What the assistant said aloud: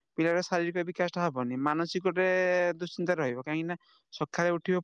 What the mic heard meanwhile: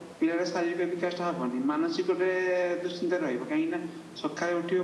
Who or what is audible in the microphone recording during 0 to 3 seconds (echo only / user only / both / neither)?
echo only